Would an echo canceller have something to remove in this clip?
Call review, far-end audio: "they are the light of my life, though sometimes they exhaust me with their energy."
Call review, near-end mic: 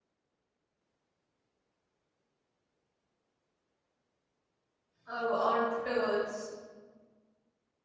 No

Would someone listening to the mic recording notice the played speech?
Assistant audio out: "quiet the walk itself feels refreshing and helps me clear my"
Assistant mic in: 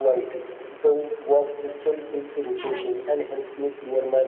Yes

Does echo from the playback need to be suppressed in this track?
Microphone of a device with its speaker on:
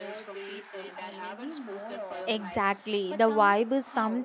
Yes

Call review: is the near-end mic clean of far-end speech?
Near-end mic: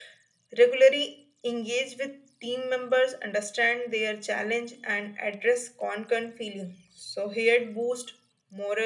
No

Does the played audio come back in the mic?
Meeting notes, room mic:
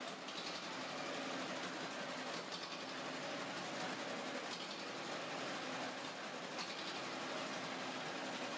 No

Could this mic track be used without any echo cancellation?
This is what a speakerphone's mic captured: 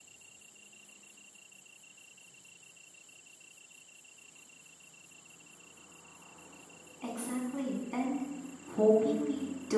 Yes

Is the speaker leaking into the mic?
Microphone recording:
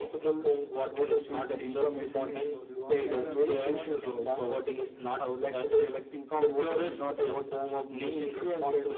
Yes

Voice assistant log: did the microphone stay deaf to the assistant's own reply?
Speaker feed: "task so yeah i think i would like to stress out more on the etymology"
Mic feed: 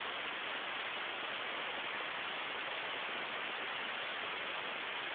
Yes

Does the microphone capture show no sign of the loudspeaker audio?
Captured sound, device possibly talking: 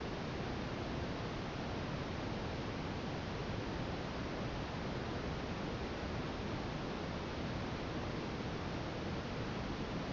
Yes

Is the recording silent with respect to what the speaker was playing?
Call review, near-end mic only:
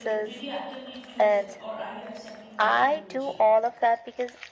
No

